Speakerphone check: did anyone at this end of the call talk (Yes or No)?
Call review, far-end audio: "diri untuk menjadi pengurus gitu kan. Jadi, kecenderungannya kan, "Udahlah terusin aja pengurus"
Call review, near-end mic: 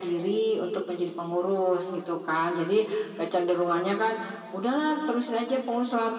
No